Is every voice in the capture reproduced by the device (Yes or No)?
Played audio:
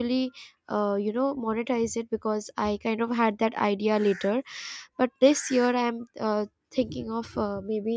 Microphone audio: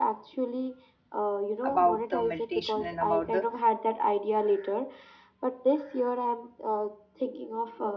No